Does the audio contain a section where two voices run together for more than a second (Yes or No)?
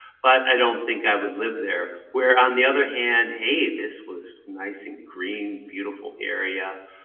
No